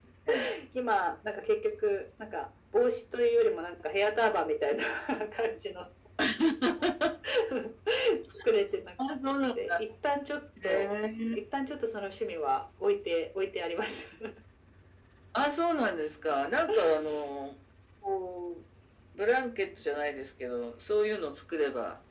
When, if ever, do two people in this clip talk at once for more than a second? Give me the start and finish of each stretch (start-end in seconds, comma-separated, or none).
none